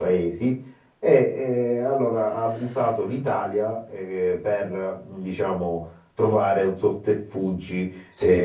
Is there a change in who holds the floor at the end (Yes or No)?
No